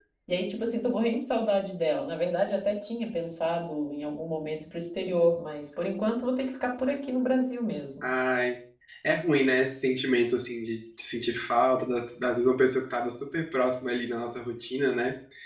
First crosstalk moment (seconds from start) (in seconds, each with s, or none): none